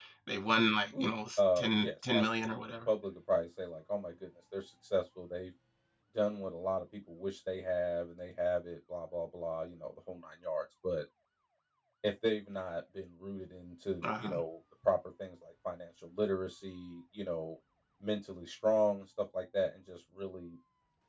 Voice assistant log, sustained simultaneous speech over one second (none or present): present